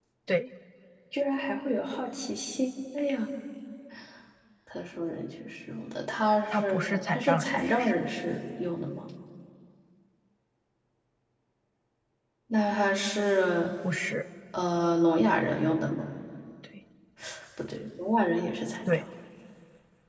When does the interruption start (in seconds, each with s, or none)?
6.5 s